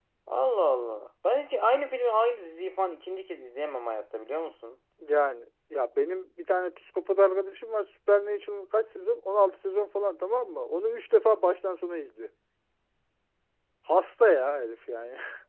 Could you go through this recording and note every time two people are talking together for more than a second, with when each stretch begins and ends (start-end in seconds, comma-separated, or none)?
none